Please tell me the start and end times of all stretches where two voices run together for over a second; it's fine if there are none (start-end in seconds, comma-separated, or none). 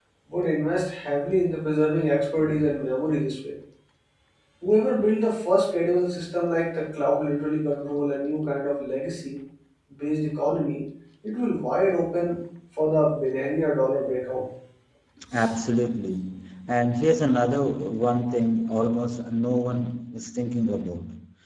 none